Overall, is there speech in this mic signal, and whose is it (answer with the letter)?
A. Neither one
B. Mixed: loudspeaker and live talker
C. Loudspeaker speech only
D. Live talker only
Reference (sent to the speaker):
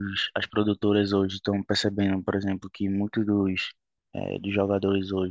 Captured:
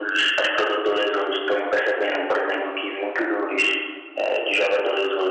C